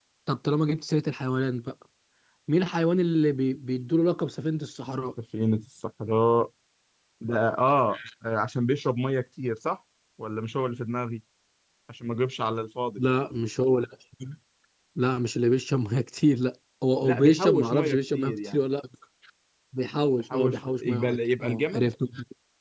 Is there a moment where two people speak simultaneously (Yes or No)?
Yes